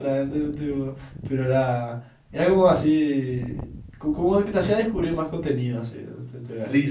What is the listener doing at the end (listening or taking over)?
taking over